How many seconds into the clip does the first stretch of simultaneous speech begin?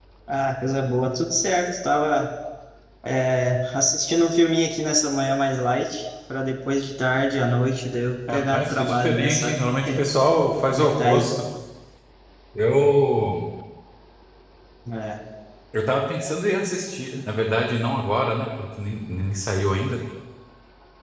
8 s

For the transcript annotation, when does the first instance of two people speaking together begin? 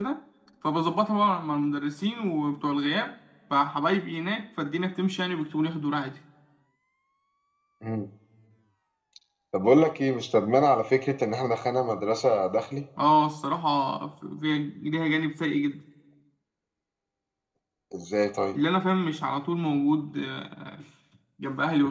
none

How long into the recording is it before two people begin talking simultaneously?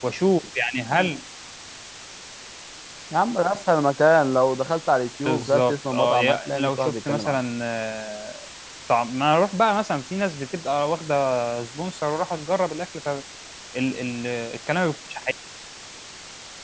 5 s

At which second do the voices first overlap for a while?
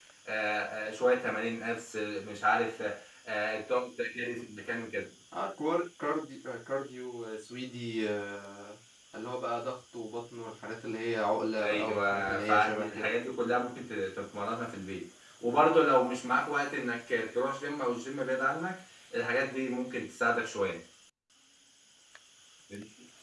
12 s

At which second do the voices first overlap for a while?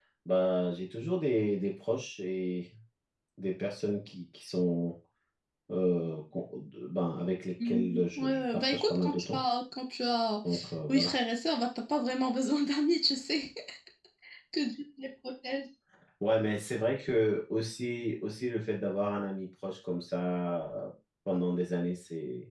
8 s

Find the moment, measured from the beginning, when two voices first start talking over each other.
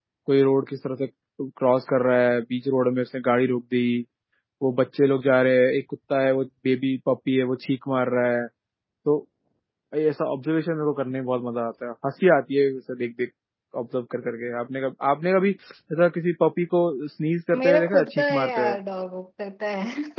18 s

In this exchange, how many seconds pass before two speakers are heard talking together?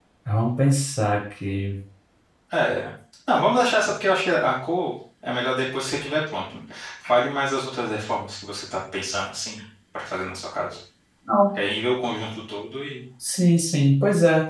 none

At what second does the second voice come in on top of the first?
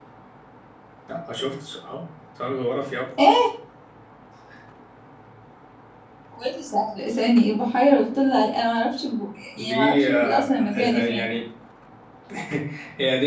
10 s

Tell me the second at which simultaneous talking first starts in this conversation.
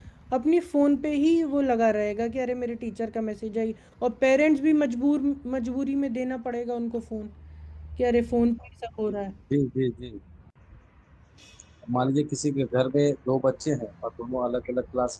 none

